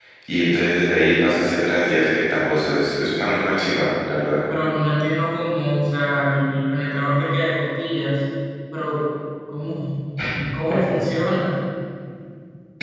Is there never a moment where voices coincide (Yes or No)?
Yes